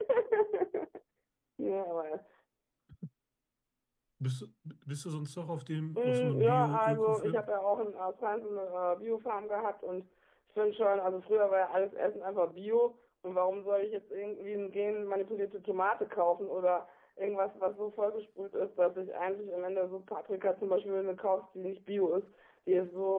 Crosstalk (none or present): present